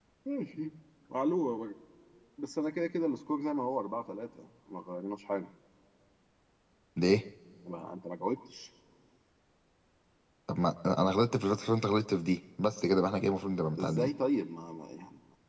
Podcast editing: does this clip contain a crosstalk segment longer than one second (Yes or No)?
No